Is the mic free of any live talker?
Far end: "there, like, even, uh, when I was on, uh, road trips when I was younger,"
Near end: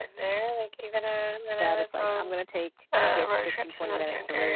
No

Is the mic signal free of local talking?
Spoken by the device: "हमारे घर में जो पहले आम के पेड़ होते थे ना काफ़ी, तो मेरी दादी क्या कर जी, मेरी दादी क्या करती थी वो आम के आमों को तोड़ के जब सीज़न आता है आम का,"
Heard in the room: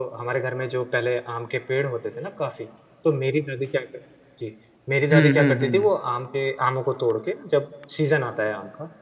No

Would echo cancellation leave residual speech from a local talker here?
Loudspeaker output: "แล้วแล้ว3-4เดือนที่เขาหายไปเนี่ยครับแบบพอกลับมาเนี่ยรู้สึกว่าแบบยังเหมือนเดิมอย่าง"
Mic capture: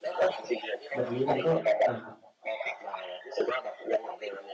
Yes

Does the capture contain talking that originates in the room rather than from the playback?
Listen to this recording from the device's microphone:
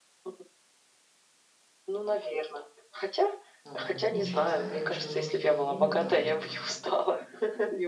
Yes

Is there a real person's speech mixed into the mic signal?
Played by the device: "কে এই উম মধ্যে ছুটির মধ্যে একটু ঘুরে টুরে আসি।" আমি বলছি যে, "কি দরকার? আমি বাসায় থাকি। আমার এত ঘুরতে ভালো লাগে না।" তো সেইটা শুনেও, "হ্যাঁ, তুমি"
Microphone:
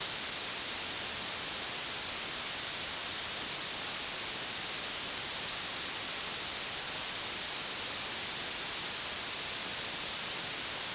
No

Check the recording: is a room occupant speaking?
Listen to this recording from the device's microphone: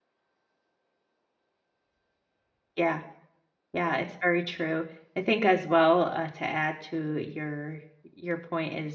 Yes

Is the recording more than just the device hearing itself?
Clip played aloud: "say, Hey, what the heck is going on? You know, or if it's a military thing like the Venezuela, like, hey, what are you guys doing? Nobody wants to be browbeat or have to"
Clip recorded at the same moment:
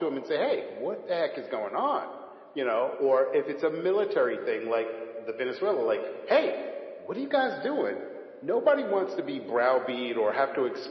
No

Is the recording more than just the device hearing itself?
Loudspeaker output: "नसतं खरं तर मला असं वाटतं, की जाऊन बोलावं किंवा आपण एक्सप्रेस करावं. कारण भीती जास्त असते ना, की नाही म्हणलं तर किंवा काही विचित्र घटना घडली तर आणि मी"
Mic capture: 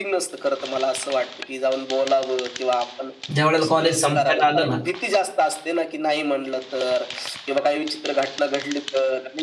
Yes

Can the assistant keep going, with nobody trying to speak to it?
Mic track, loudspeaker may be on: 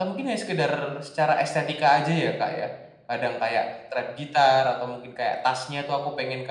Yes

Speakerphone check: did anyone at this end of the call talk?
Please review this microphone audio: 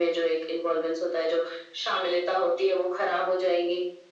No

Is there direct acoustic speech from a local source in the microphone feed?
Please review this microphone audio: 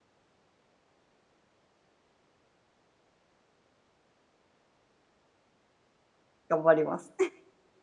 Yes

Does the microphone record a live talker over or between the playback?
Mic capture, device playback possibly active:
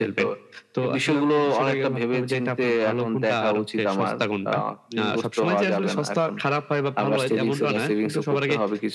No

